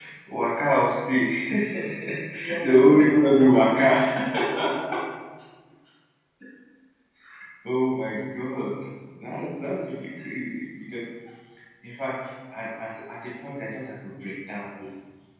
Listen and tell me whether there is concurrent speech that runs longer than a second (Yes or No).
Yes